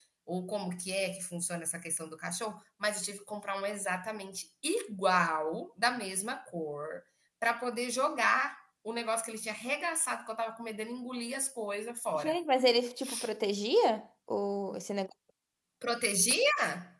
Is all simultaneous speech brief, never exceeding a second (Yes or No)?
Yes